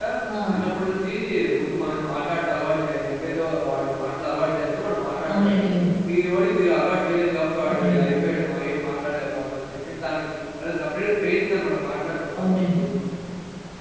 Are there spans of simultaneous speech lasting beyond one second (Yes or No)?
No